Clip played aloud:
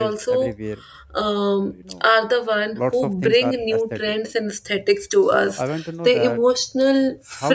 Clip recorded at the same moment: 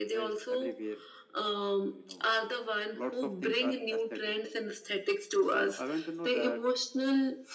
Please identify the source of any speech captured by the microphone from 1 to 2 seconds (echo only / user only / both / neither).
echo only